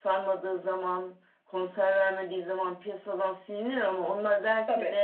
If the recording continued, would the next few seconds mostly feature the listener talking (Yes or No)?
No